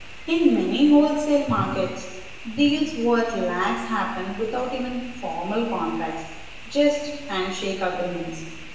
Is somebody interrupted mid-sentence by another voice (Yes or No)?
No